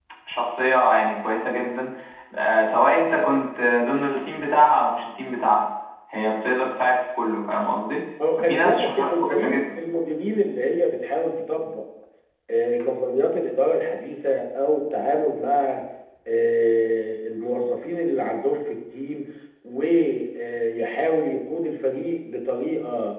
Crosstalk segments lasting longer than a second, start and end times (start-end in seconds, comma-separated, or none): 8.4-9.6